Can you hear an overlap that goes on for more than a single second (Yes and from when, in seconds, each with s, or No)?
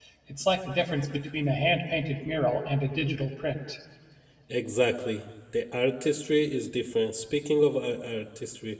No